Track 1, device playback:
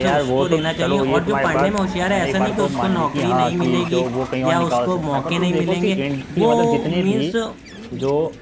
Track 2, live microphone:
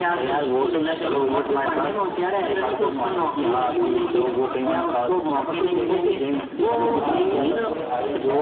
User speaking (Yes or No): Yes